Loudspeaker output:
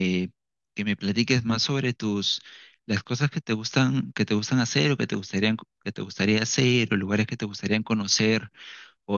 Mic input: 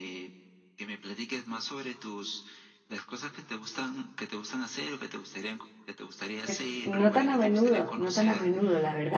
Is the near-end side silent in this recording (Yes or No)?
No